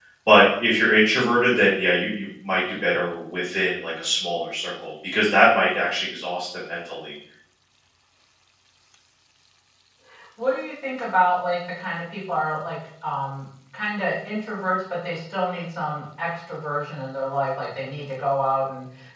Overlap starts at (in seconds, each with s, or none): none